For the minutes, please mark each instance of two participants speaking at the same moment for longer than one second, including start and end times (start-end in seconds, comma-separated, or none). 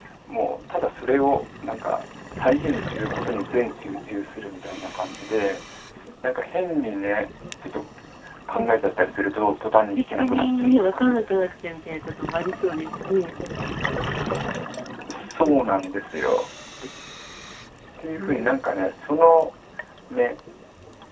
9.9-11.5